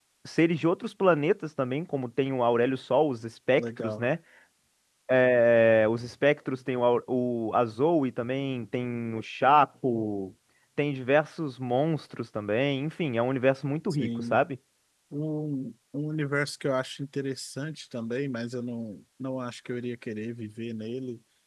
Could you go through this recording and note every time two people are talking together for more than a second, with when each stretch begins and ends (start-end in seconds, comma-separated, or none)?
none